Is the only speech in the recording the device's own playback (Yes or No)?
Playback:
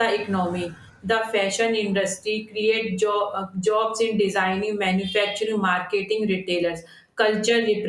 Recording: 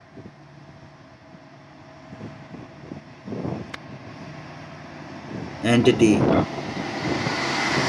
No